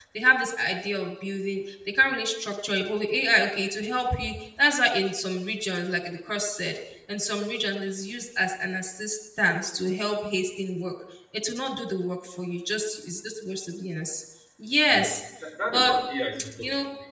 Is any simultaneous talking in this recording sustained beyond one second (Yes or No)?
No